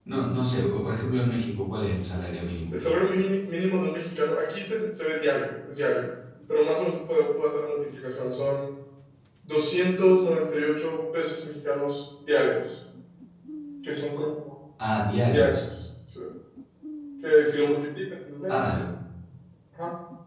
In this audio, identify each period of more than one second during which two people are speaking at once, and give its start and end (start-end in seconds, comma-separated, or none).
none